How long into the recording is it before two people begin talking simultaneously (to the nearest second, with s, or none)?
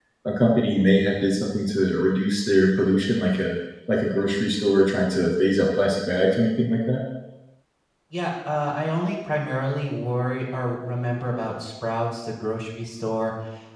none